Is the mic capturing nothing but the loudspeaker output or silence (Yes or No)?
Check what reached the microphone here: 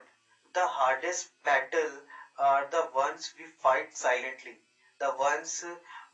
Yes